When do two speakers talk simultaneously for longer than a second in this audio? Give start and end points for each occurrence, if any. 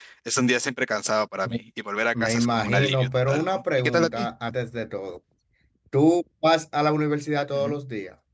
2.2-4.3

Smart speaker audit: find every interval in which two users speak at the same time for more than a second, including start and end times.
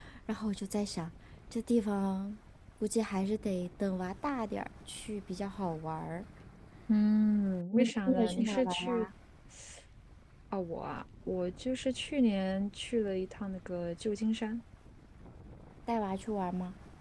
7.7-9.1

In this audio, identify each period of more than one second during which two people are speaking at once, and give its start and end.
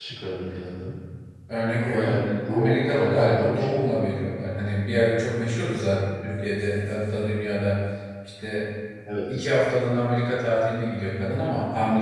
1.8-3.8

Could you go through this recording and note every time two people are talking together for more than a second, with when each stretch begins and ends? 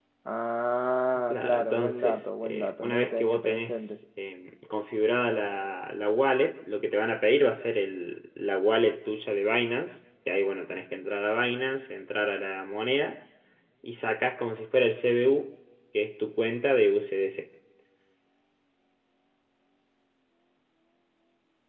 1.3-4.0

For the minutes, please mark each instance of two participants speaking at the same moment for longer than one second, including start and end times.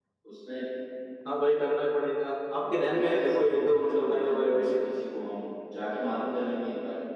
2.9-4.8

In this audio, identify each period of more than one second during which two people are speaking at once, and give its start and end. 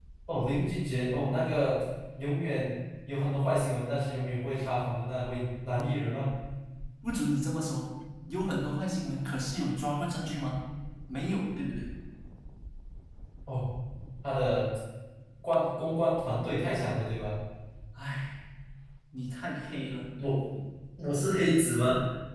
none

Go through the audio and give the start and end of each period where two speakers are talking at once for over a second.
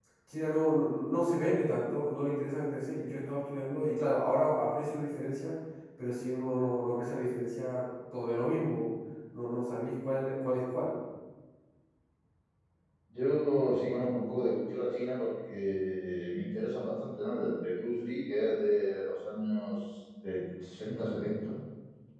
none

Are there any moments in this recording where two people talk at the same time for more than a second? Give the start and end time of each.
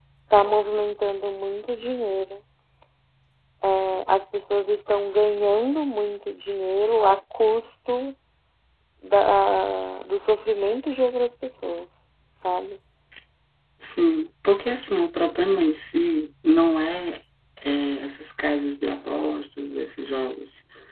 none

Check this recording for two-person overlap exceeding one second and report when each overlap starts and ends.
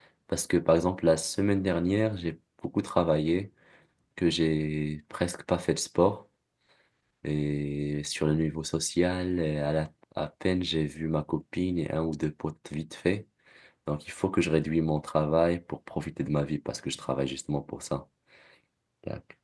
none

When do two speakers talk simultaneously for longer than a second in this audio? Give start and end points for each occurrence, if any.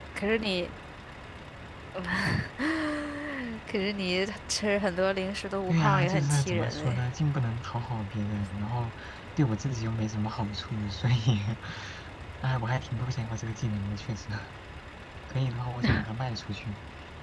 5.7-7.0

